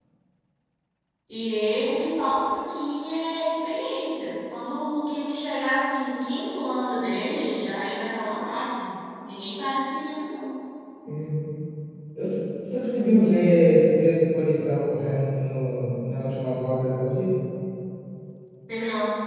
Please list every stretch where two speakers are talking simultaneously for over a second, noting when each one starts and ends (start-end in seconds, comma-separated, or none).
none